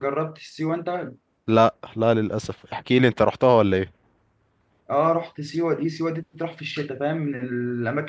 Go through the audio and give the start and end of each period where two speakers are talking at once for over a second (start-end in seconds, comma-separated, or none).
none